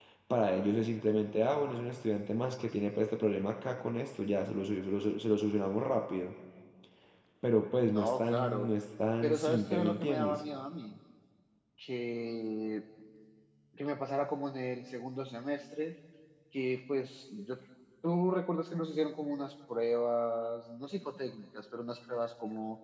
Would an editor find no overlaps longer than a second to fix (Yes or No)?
No